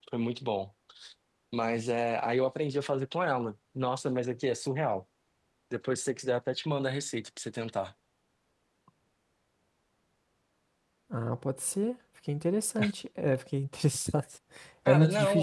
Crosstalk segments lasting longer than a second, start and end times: none

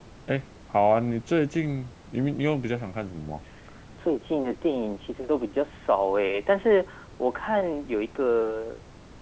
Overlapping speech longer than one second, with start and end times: none

